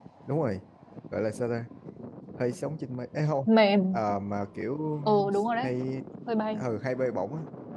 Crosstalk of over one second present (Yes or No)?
No